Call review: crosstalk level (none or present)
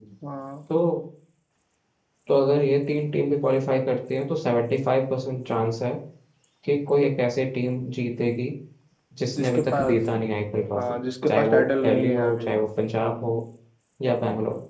present